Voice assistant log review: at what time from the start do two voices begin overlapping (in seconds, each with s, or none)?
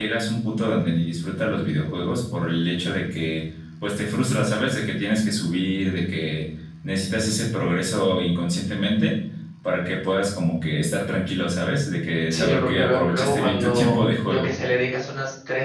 12.3 s